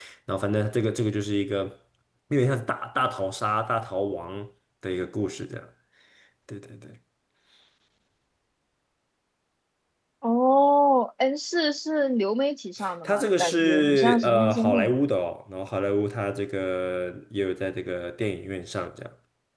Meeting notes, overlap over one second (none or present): present